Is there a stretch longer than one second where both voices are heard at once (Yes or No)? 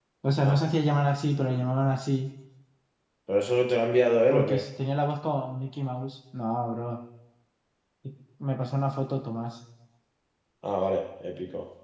No